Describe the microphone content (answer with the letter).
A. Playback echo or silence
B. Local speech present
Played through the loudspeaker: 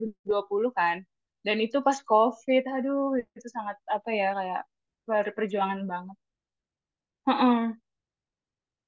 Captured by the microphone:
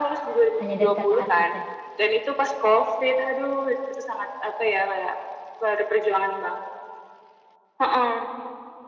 B